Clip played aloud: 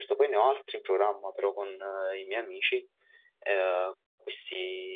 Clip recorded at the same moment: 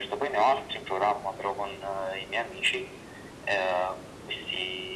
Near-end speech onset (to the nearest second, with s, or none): none